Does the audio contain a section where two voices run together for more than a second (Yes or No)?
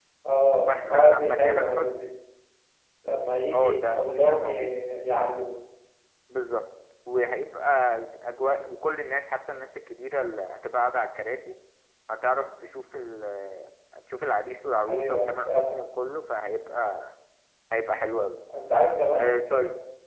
Yes